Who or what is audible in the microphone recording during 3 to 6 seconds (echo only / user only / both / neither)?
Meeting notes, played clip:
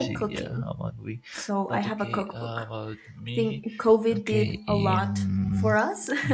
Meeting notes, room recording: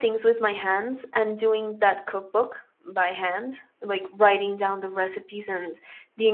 user only